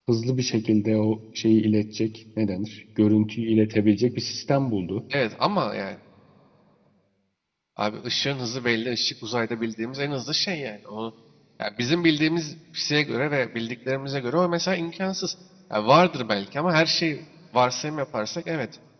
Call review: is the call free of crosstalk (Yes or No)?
Yes